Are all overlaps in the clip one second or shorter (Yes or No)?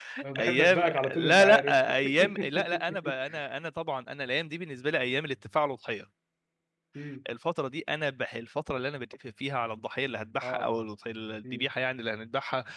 No